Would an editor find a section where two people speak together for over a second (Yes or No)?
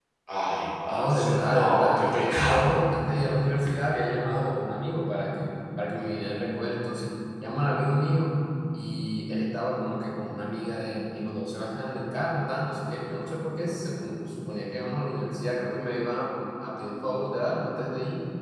Yes